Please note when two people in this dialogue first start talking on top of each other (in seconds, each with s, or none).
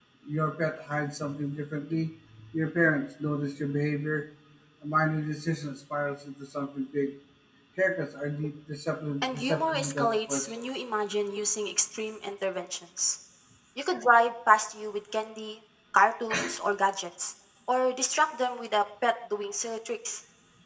9.2 s